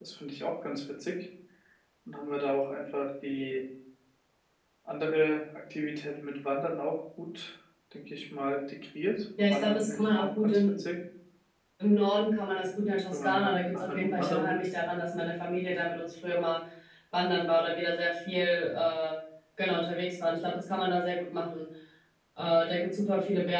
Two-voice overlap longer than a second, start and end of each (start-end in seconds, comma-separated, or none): 9.4-10.8, 13.1-14.6